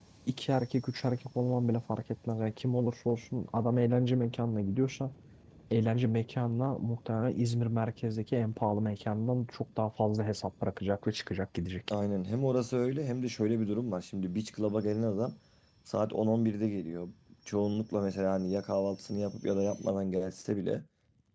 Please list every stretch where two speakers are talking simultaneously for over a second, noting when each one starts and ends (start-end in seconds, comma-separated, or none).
none